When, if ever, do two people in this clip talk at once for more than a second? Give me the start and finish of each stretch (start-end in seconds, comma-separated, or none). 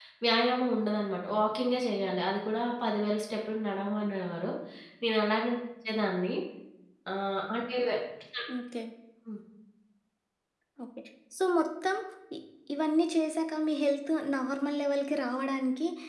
none